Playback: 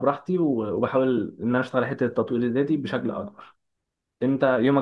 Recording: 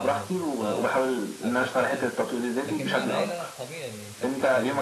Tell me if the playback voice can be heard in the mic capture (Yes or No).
Yes